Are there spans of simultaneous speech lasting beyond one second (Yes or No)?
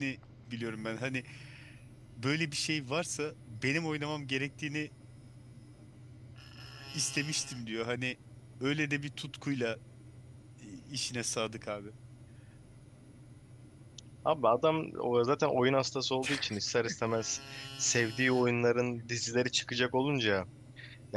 No